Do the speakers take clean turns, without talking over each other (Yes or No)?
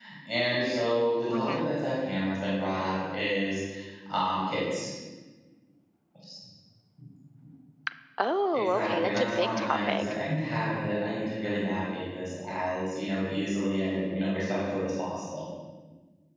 No